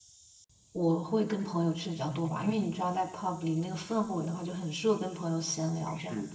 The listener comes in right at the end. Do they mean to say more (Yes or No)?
Yes